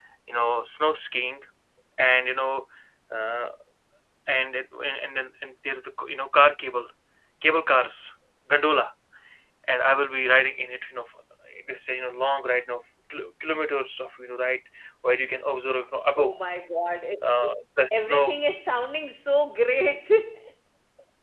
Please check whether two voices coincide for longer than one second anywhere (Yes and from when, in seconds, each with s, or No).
No